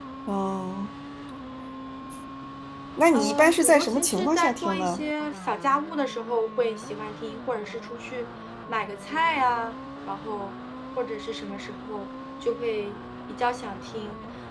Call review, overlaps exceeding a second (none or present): present